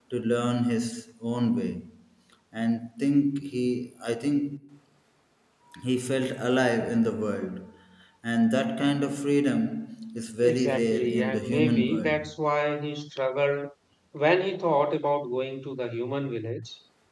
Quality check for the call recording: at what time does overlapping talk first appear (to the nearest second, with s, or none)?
10 s